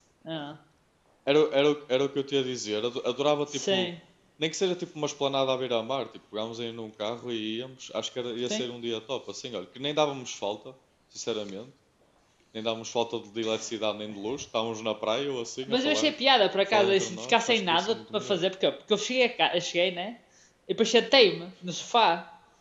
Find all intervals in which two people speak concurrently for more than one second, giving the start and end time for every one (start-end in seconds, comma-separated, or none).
16.7-18.4